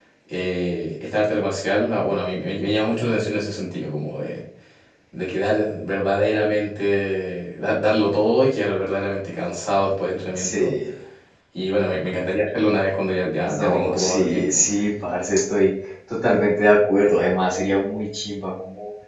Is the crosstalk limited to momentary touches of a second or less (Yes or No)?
No